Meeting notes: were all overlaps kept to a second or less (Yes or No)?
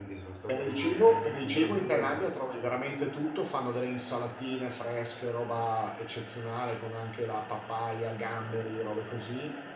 No